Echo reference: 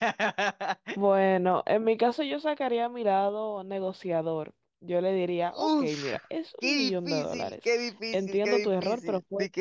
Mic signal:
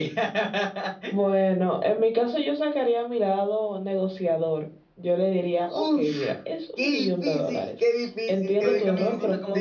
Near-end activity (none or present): present